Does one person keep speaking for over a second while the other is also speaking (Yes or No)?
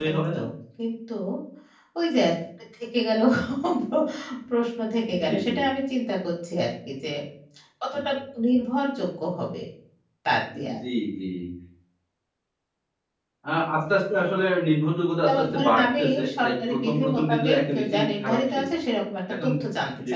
Yes